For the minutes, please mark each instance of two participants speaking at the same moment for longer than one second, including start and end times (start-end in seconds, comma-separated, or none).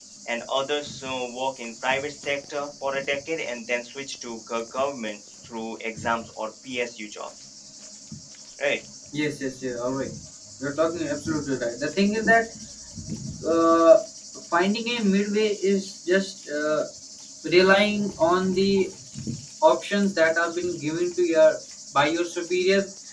none